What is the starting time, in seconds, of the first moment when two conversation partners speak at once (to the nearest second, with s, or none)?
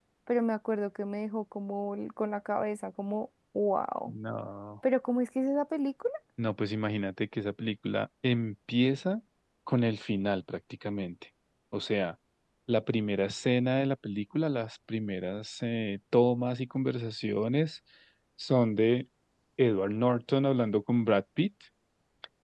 none